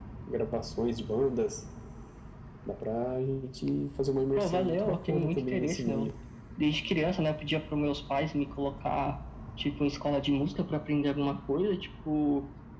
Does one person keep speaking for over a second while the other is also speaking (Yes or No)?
Yes